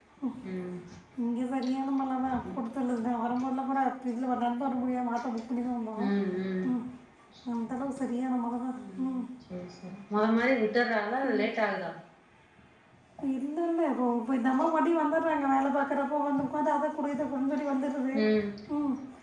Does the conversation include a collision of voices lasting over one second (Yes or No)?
No